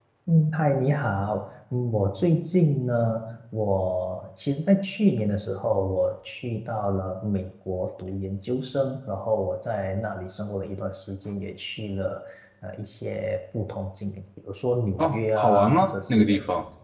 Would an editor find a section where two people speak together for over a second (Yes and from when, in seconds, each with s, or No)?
Yes, from 15.0 s